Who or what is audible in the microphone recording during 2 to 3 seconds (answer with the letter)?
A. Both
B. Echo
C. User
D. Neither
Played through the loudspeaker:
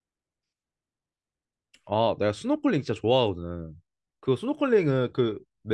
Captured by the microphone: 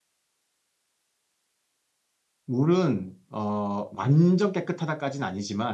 C